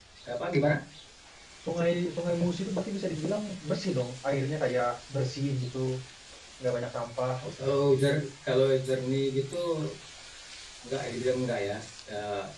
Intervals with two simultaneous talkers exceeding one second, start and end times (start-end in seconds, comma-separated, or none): none